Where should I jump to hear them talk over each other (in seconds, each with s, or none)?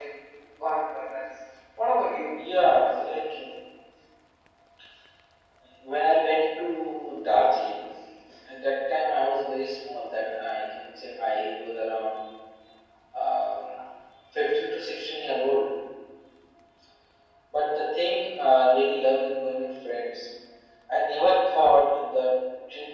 none